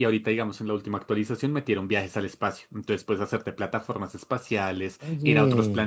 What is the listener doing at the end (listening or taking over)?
listening